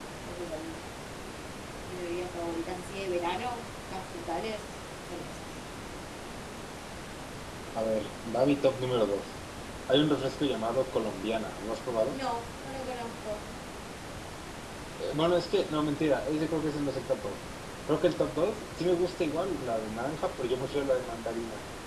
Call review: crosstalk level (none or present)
none